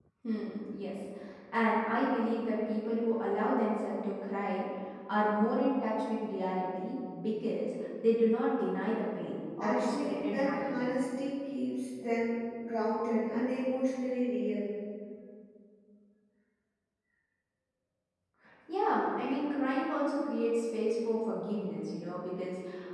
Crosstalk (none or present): present